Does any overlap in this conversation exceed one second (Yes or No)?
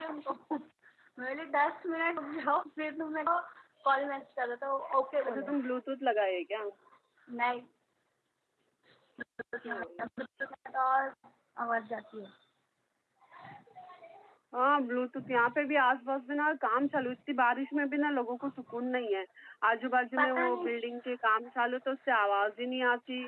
No